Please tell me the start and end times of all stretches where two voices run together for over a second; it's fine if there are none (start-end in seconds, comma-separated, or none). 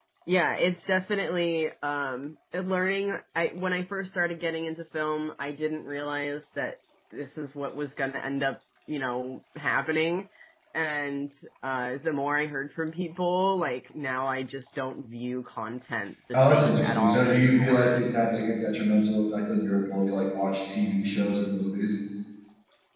16.3-18.0